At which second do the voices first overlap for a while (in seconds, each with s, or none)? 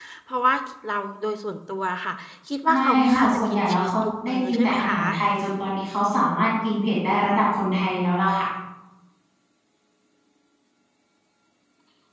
2.7 s